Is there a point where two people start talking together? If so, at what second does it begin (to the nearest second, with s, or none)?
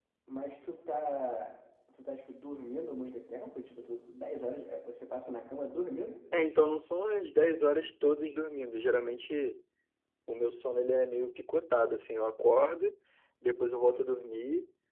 none